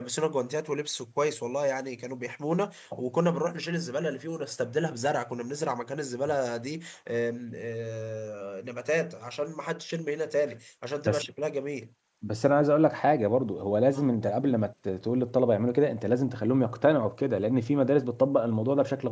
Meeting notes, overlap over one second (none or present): none